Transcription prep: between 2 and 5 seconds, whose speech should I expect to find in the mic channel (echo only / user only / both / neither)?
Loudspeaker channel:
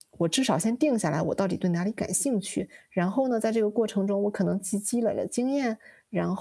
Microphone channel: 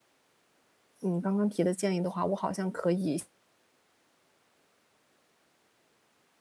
user only